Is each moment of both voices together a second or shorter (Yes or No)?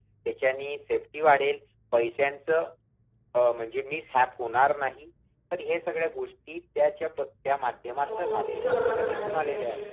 No